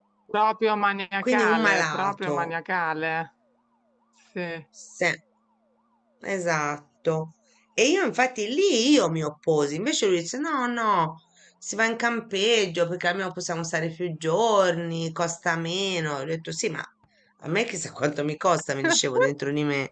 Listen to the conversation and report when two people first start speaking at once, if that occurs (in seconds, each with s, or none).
1.2 s